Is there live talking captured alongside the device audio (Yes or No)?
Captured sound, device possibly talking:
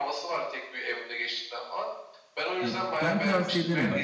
Yes